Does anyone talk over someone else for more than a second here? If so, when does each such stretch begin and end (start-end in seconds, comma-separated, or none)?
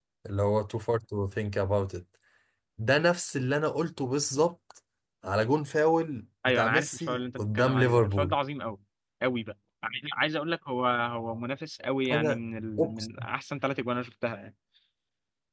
6.5-8.3